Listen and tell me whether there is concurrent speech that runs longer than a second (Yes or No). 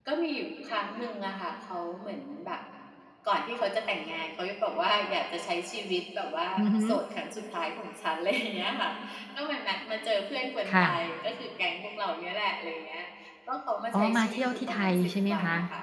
Yes